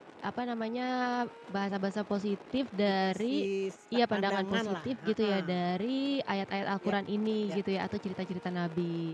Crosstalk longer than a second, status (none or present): present